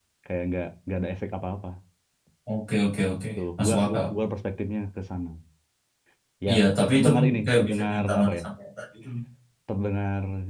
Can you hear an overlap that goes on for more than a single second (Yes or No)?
Yes